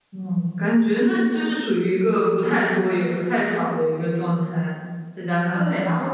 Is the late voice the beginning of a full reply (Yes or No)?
Yes